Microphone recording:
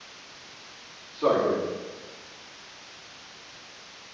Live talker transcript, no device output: sorry, go ahead.

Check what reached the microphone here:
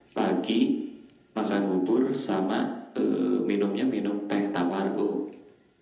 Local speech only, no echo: none

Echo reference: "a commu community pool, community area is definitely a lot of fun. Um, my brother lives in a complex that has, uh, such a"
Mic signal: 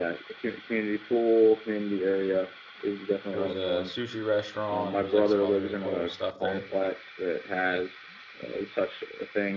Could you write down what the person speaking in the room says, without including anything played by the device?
there was a sushi restaurant, there was, like, some other little stuff there,

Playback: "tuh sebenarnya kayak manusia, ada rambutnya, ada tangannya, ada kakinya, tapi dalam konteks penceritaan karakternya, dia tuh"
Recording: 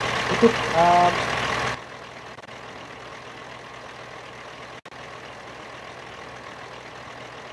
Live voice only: itu, eee,

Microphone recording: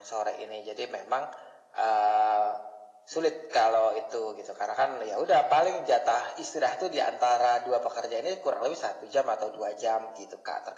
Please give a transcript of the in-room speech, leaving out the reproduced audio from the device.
none

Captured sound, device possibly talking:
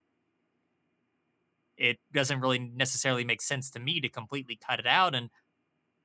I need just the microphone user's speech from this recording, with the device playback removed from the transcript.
it doesn't really necessarily make sense to me to completely cut it out and

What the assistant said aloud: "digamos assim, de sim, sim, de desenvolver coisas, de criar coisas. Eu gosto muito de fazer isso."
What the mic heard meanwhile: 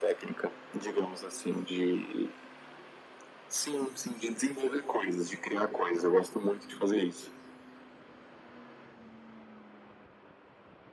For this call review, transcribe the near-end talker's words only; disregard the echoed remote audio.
none

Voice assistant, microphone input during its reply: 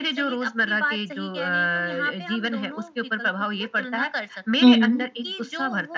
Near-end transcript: हुँ,

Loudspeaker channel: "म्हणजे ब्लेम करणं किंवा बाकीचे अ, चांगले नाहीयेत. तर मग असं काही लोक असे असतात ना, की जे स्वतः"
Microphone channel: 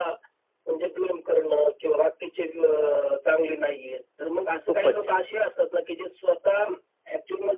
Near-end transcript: खूपच छान.

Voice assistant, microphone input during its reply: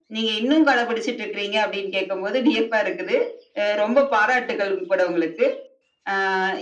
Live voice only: none

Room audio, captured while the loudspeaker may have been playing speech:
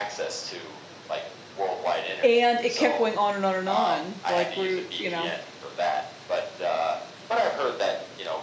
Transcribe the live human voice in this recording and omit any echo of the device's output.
and it kept going on and on and on, like, we're you know?

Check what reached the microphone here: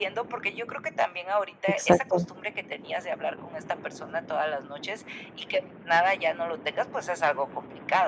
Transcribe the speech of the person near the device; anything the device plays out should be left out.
exacto.

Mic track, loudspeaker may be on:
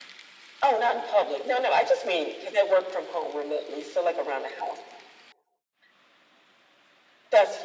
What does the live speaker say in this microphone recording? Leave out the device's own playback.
none

